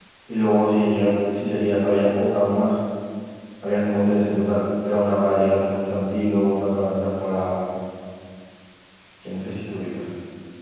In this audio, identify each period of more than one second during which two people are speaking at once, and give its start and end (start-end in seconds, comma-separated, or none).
none